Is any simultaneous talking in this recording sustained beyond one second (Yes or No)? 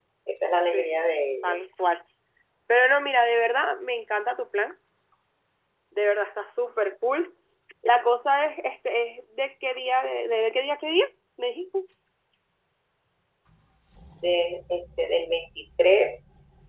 No